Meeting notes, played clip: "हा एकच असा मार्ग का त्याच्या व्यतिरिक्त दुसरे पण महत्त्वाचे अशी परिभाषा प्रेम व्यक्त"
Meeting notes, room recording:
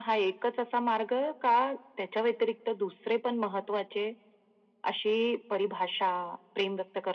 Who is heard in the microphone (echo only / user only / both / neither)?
echo only